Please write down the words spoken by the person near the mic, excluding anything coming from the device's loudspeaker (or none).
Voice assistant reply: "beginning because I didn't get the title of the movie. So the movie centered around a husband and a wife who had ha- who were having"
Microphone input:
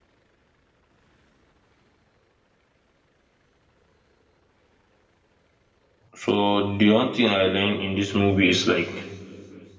So the one thing I learned in this movie is like